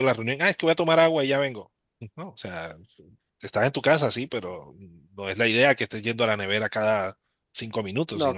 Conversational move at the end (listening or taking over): taking over